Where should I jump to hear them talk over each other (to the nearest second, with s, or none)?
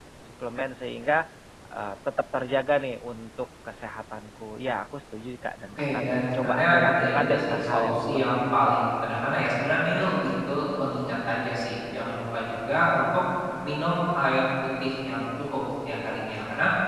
6 s